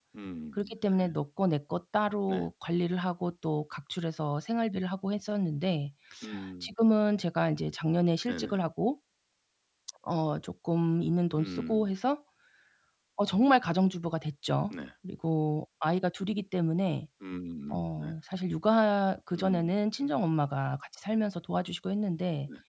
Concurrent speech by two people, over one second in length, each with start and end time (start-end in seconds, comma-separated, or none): none